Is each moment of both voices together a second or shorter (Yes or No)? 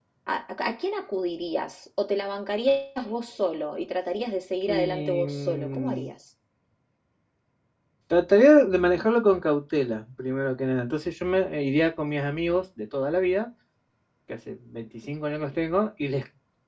No